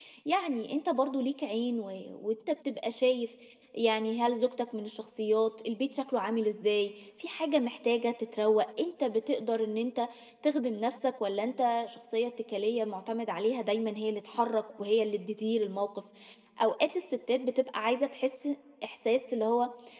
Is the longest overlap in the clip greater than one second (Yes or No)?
No